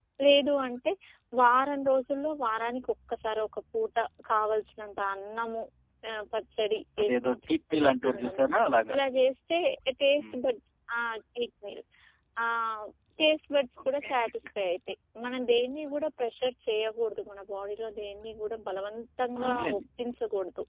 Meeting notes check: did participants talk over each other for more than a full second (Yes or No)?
Yes